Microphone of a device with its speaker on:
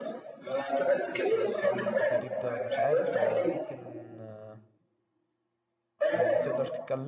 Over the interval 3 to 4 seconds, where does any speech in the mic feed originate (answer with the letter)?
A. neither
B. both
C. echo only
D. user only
B